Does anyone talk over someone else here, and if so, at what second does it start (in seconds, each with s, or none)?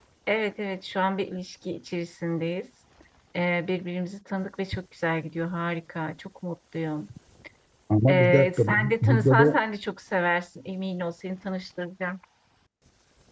8.1 s